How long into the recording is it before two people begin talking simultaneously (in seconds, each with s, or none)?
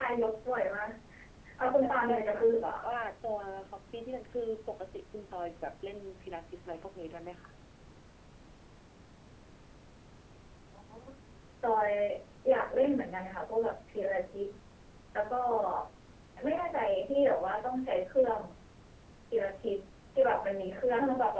1.6 s